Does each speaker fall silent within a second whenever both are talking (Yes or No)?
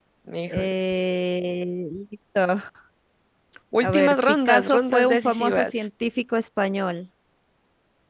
No